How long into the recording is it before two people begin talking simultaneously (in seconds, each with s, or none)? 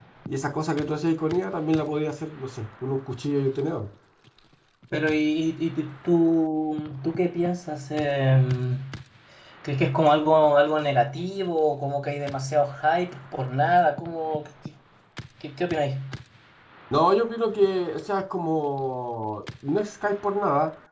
none